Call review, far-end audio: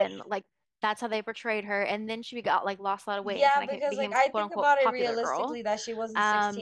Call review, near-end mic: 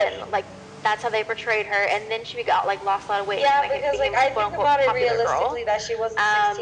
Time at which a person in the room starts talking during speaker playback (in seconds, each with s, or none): none